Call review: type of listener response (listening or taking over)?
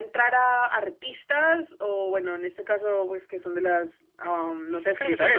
taking over